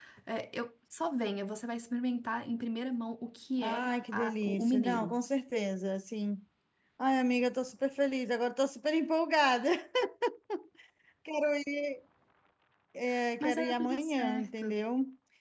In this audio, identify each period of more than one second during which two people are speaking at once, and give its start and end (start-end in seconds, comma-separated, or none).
3.6-5.1, 13.4-14.8